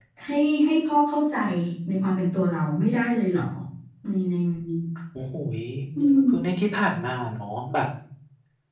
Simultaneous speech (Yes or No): No